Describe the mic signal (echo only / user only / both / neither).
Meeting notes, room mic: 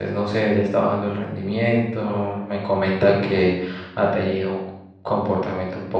user only